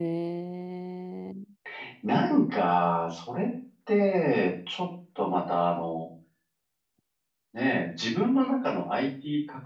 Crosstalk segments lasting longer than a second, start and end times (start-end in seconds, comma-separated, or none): none